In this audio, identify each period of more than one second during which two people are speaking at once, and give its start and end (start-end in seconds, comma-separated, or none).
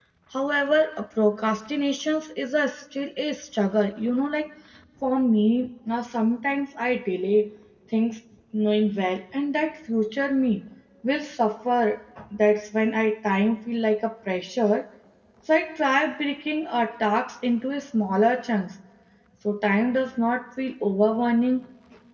none